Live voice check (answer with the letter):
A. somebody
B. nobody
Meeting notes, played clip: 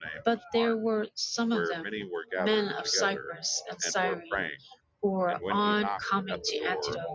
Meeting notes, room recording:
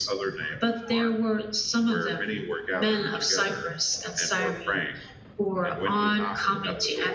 B